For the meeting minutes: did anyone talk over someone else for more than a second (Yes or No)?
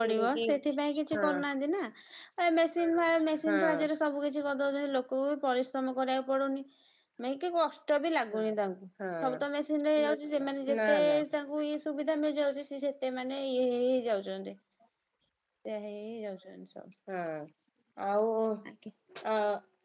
No